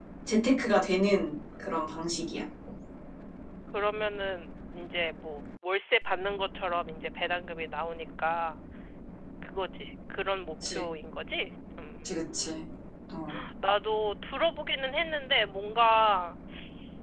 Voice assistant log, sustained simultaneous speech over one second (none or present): none